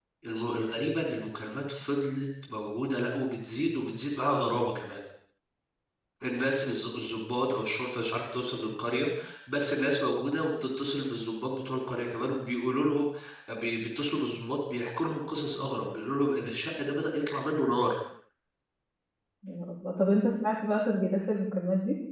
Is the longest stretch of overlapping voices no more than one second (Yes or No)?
Yes